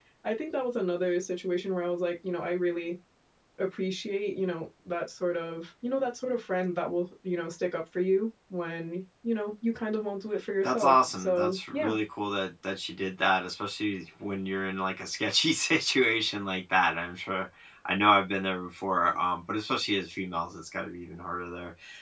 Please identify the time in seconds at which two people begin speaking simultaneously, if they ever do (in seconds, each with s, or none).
10.6 s